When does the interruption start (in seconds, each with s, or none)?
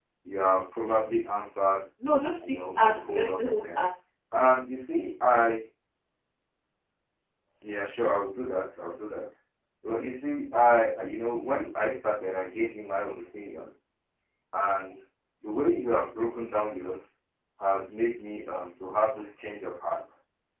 2.4 s